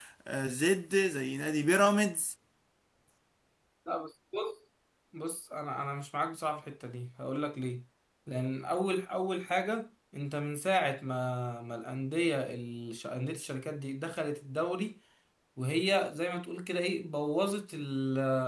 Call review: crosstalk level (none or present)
none